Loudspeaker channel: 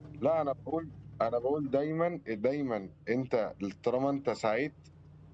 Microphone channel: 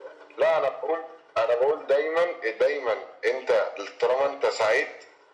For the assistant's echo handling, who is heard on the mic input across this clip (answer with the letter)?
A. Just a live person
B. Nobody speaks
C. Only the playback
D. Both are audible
C